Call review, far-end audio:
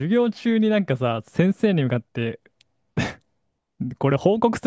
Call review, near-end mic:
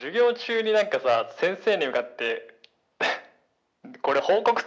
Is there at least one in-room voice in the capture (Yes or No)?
No